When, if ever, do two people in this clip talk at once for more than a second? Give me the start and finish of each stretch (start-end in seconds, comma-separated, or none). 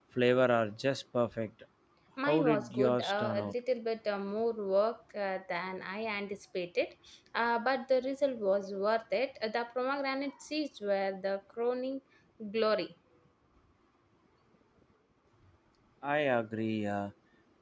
2.3-3.5